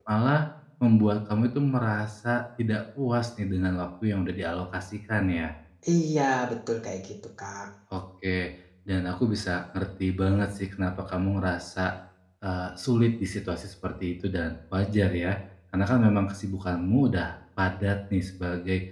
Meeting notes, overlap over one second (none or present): none